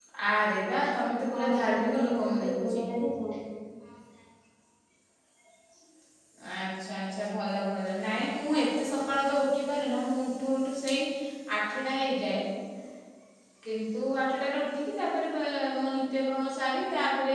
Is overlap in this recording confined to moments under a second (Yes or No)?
No